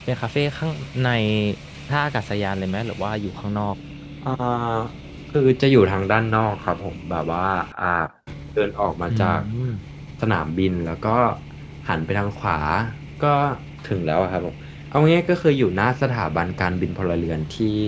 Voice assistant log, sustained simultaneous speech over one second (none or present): none